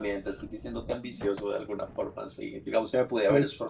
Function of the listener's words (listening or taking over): listening